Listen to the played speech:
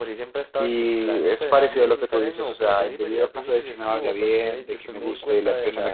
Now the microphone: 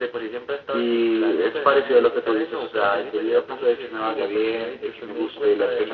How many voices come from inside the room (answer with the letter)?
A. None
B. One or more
A